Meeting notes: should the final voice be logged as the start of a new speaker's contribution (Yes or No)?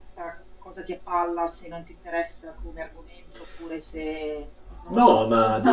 Yes